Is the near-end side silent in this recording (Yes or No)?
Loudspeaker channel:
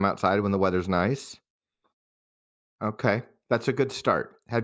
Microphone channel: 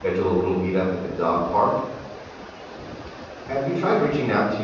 No